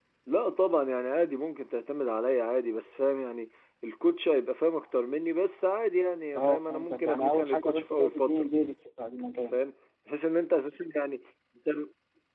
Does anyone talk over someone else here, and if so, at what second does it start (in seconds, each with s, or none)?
6.3 s